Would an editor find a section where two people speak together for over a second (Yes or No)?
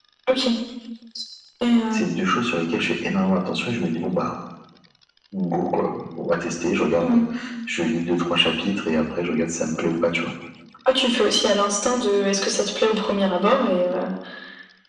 No